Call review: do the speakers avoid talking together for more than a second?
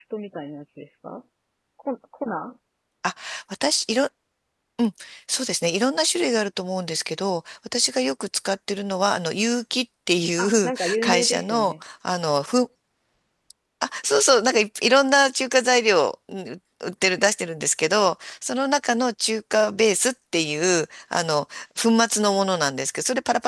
No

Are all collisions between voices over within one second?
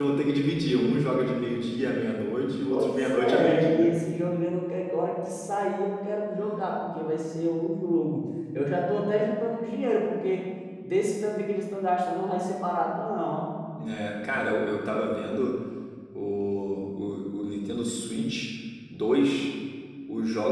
No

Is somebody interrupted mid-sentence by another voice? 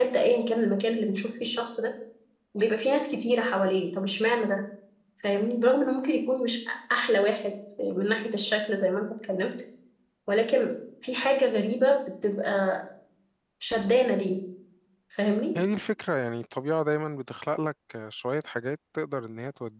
No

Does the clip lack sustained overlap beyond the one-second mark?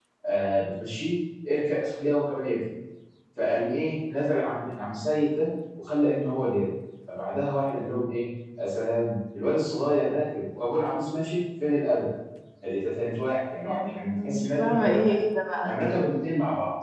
No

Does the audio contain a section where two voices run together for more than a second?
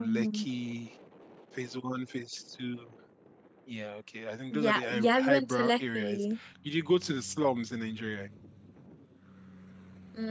Yes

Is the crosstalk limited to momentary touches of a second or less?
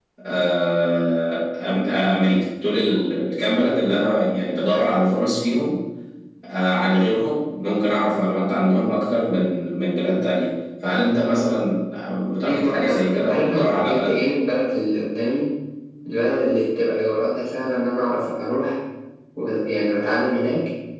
No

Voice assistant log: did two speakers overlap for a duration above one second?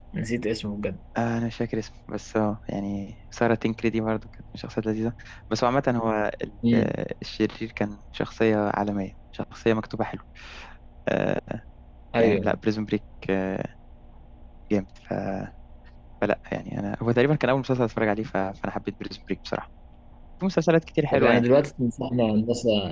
No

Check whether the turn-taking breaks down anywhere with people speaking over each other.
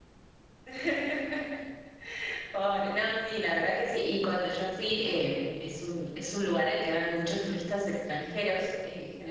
No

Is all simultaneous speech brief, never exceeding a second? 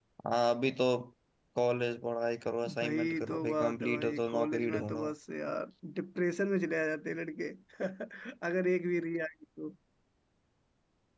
No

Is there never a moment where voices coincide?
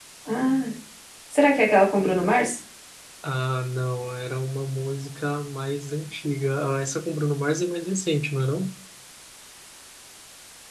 Yes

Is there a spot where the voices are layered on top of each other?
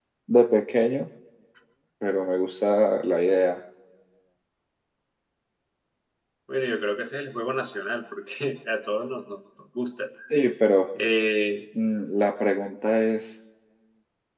No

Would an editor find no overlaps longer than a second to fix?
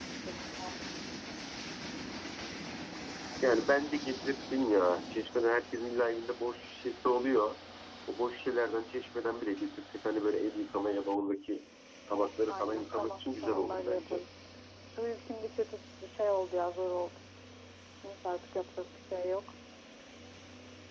No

